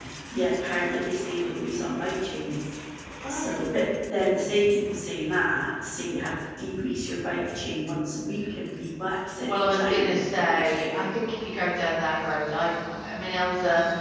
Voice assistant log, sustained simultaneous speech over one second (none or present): present